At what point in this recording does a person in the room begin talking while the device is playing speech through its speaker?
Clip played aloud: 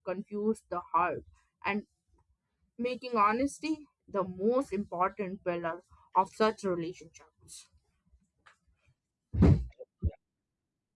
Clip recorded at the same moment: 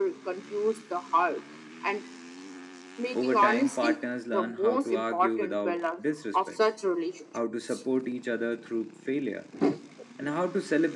3.1 s

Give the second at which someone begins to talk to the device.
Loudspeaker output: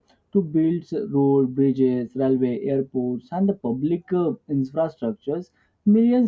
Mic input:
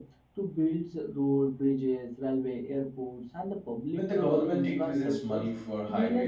3.9 s

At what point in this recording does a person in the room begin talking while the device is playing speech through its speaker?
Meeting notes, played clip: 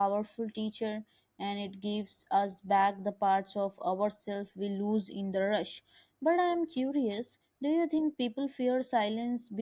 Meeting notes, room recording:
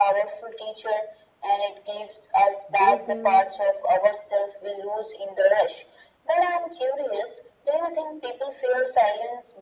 2.7 s

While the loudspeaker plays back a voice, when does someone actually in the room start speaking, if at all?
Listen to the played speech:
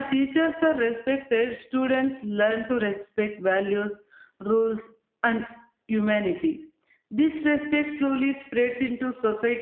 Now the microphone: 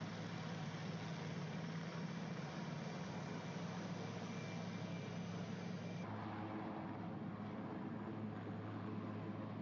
none

